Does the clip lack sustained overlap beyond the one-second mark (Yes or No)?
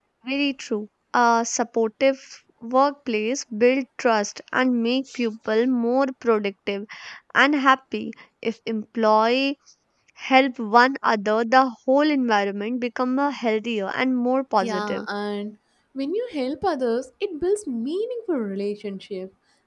Yes